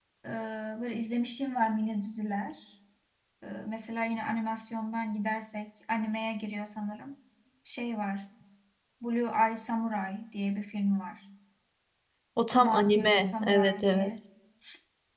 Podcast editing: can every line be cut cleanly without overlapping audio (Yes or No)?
No